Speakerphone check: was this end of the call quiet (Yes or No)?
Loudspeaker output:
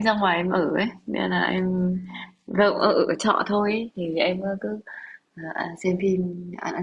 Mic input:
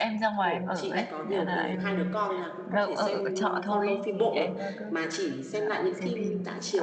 No